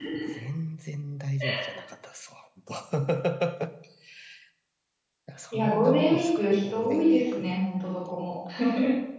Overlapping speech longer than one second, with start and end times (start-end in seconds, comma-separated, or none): 5.5-7.5